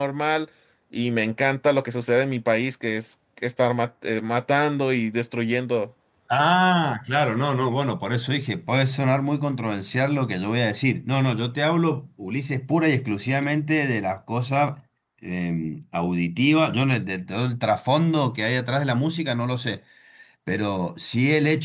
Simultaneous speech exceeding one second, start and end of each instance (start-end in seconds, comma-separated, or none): none